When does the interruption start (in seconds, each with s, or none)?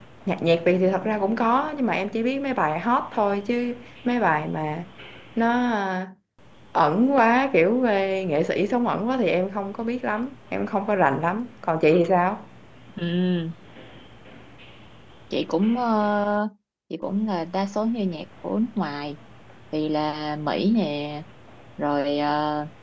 none